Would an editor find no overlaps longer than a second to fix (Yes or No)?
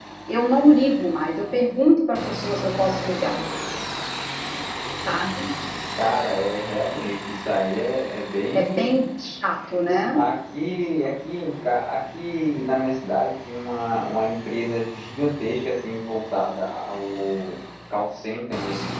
Yes